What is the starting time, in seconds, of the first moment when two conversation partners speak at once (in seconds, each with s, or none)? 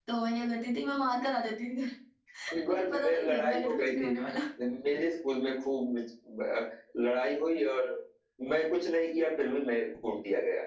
2.7 s